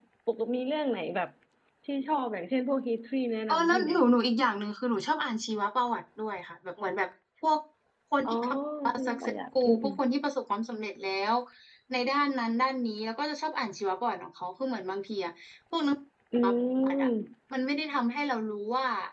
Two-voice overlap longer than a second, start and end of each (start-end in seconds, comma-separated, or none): none